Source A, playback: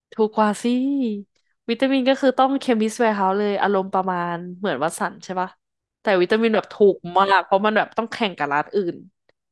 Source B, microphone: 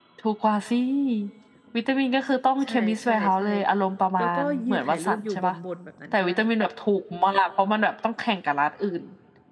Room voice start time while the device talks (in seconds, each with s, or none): 2.6 s